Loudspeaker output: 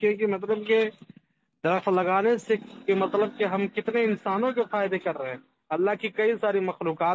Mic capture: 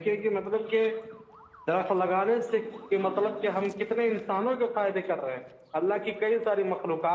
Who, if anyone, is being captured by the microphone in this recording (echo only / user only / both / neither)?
echo only